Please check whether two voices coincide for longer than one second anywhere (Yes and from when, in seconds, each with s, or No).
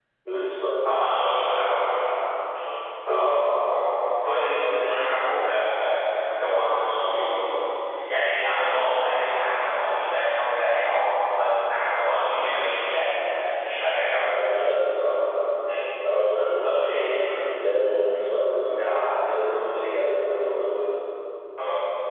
No